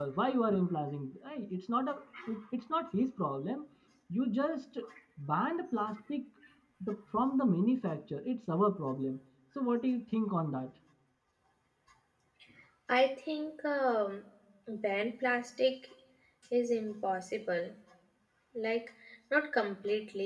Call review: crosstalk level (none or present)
none